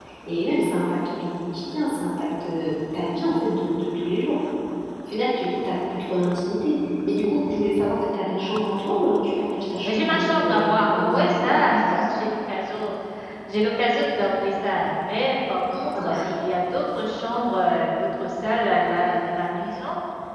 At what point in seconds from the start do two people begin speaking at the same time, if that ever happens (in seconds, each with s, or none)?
9.8 s